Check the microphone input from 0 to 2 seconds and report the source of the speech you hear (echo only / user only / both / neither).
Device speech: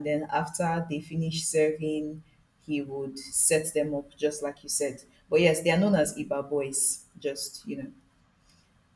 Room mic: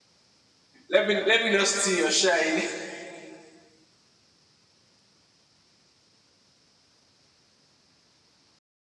user only